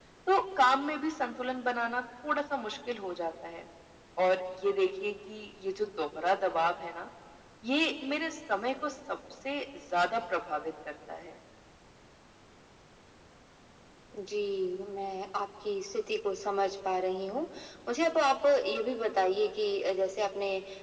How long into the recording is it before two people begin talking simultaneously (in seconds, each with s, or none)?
none